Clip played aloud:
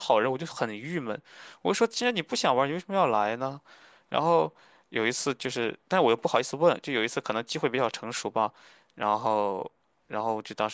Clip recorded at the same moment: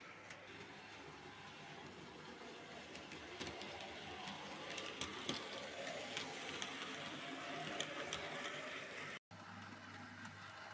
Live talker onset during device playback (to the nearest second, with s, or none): none